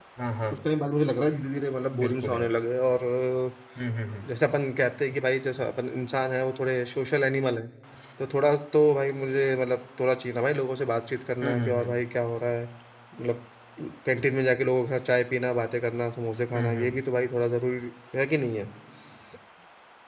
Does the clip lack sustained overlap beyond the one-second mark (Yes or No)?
Yes